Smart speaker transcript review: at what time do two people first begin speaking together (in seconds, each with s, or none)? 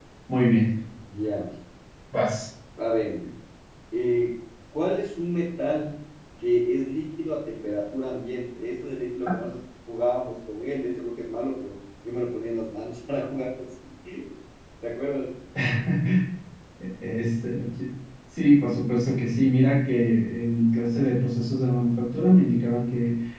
none